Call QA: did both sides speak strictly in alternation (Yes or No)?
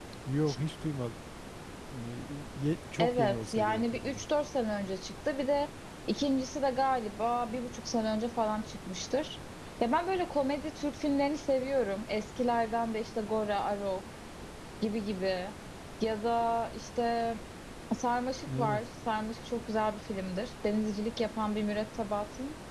No